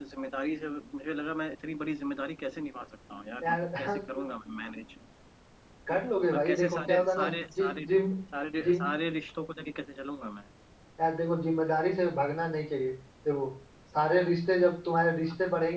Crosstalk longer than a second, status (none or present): present